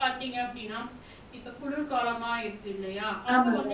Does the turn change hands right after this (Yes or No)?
No